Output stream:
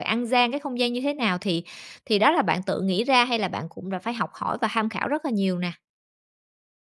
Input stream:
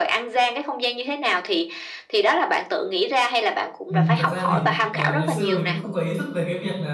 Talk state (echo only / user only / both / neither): both